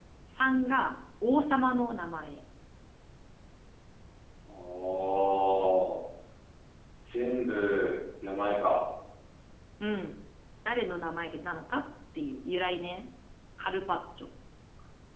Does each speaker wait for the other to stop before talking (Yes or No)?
Yes